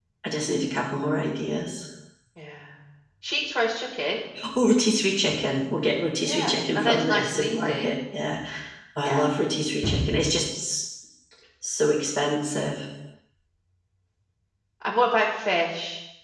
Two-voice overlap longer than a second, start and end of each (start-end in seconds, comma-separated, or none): 6.2-7.9